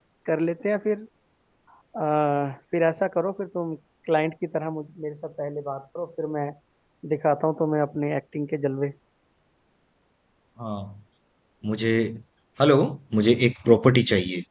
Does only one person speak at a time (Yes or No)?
Yes